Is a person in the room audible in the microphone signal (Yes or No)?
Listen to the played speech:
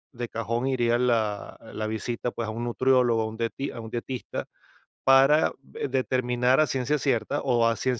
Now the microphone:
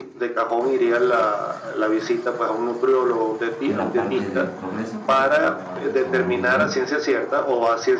Yes